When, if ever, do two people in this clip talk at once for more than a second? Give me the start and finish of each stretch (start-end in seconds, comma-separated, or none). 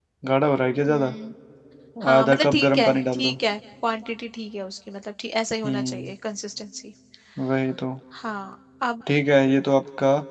2.1-3.3